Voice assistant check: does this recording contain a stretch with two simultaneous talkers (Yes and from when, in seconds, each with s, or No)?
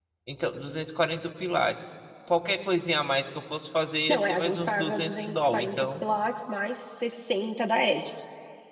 Yes, from 4.1 s